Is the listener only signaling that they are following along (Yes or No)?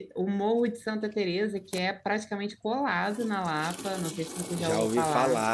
No